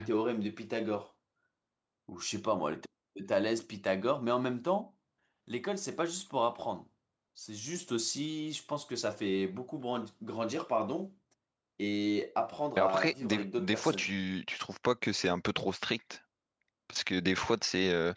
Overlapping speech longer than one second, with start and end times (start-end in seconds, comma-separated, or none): 12.8-14.1